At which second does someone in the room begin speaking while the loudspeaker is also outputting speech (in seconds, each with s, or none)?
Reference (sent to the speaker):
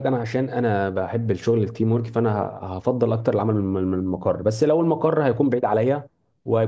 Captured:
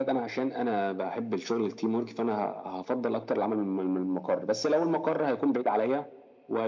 none